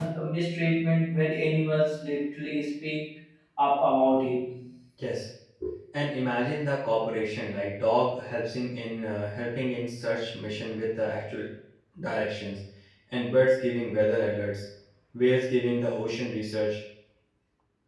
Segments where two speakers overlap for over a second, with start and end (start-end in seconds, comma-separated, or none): none